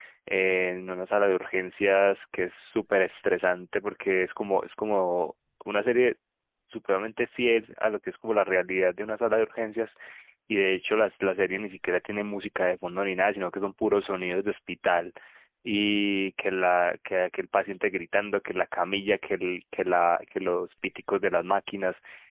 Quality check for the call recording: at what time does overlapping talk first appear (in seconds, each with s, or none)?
none